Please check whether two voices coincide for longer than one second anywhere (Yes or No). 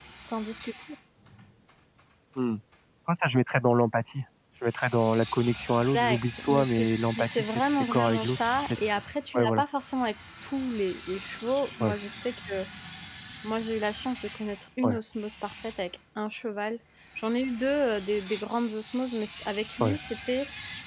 Yes